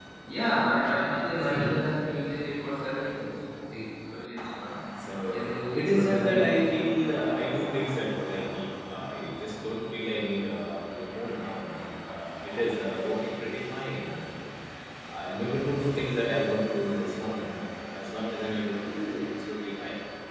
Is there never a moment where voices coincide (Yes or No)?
No